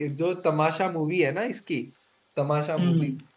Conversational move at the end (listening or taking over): listening